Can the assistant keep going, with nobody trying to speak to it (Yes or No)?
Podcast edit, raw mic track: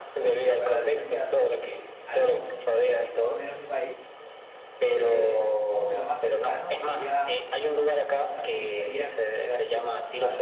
No